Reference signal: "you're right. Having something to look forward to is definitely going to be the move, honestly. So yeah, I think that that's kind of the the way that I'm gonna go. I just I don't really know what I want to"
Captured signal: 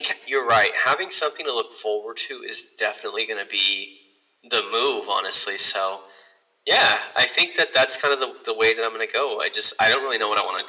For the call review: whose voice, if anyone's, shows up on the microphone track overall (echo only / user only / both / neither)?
echo only